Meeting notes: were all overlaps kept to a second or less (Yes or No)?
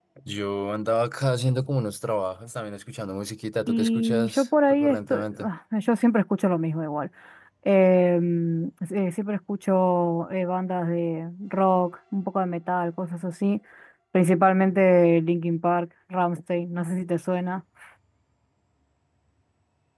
No